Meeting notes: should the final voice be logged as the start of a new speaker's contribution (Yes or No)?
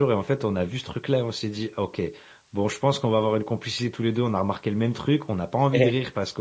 No